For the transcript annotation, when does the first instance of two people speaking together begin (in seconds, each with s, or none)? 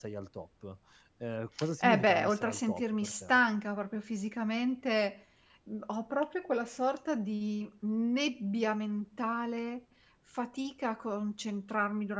1.8 s